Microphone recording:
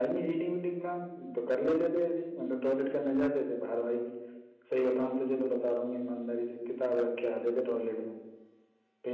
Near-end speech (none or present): none